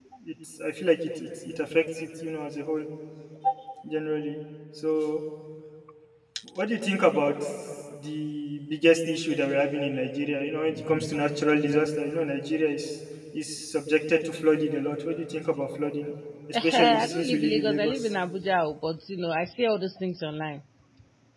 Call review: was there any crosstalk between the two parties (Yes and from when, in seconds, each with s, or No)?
Yes, from 16.5 s